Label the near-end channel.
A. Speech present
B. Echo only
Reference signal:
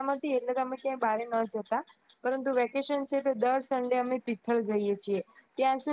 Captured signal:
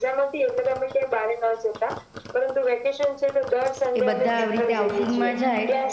A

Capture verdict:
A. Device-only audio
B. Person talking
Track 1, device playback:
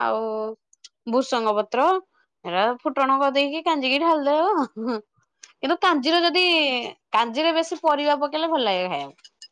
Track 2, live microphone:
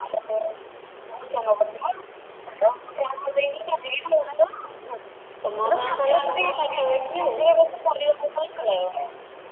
B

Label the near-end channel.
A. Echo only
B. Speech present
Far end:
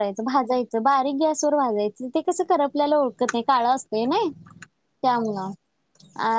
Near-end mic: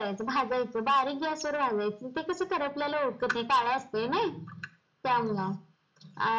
A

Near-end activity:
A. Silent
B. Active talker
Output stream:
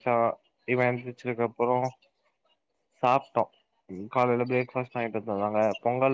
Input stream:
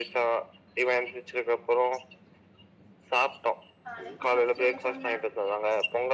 B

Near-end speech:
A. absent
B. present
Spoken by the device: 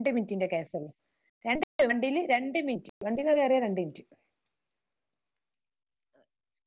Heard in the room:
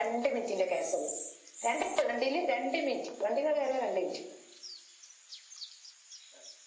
A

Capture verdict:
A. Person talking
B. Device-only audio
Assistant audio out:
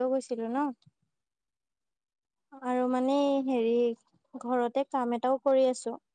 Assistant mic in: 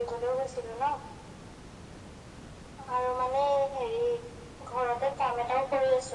B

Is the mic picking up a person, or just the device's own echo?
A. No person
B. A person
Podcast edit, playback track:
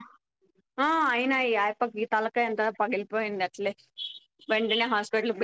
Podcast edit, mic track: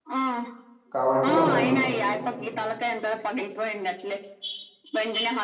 B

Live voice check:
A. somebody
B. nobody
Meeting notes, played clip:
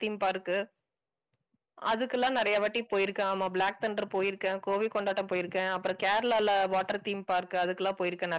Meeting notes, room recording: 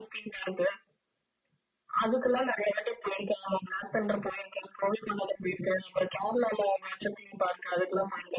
B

